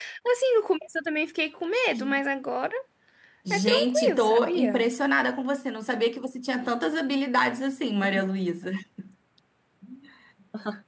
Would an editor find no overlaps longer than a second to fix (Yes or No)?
No